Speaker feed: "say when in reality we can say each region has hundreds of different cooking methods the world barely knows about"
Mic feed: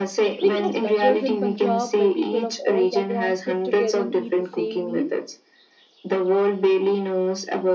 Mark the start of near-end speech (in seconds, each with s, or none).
0.4 s